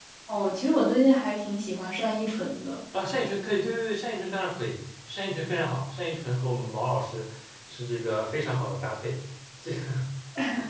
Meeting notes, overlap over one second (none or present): none